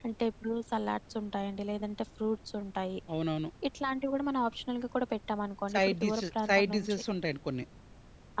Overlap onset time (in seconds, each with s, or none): 5.7 s